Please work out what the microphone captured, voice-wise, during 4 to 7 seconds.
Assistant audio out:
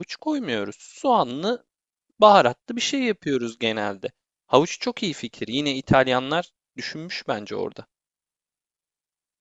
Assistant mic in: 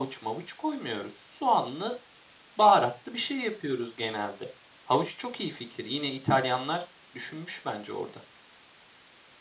echo only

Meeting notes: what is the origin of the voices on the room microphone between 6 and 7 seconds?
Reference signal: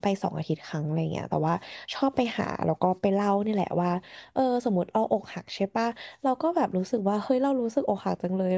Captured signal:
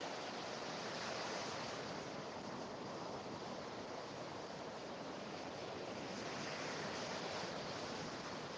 neither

